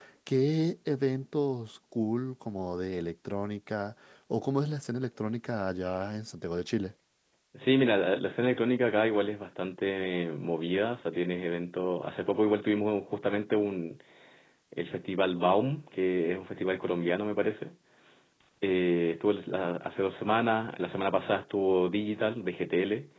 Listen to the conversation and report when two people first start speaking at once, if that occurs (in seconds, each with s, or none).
none